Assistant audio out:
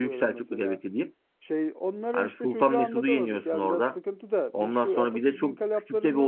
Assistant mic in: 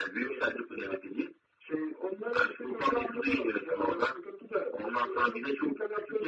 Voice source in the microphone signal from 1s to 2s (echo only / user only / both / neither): echo only